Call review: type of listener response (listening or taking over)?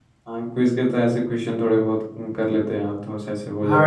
taking over